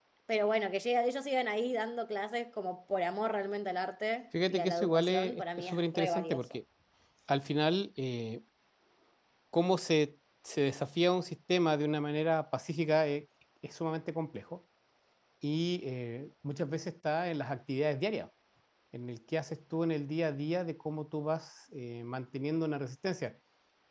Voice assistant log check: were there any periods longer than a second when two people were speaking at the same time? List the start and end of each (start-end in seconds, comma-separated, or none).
4.5-6.6